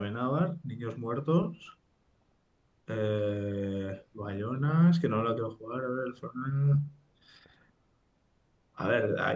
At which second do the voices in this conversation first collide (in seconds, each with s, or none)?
none